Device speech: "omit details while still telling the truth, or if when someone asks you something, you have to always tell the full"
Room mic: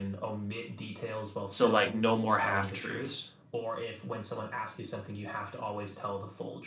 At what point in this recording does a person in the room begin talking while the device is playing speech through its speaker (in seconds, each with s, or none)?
1.5 s